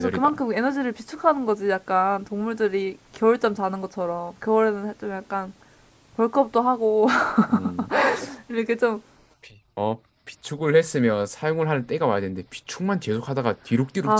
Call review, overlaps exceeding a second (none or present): none